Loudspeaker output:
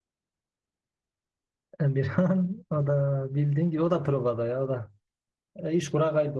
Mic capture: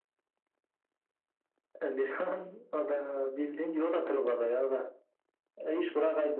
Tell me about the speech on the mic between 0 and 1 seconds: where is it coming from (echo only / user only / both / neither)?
neither